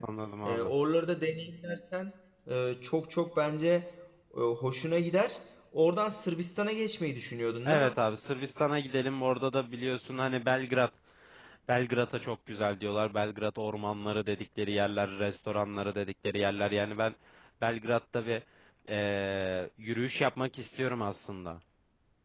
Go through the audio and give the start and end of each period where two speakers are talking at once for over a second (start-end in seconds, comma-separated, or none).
none